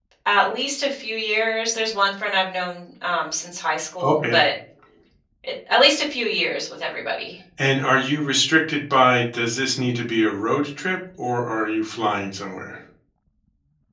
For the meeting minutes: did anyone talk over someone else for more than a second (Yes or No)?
No